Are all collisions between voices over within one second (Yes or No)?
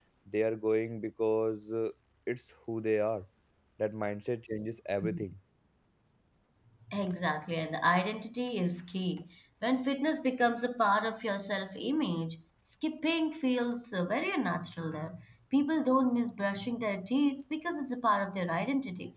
Yes